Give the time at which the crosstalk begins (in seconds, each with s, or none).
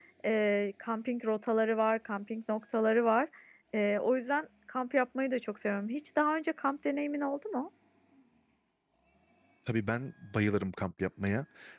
none